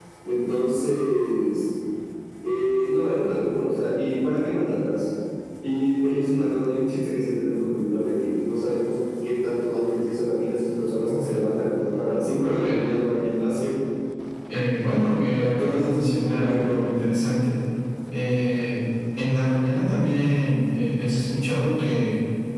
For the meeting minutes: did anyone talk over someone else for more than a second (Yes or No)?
Yes